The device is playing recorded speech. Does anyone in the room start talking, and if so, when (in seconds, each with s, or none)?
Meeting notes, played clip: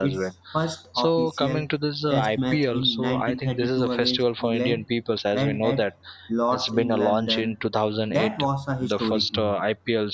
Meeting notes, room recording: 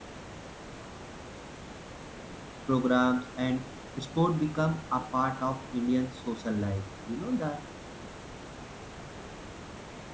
2.6 s